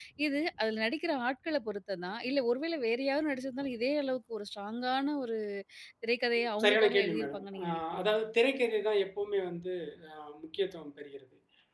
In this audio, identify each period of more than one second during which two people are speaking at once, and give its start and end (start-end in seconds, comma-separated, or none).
6.6-8.2